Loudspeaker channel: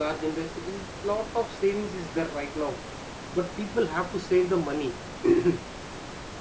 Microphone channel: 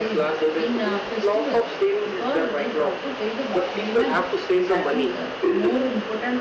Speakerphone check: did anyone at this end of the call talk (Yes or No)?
Yes